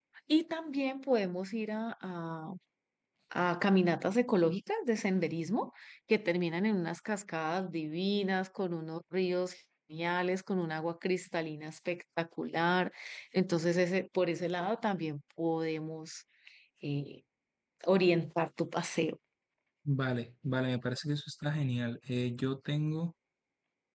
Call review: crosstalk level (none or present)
none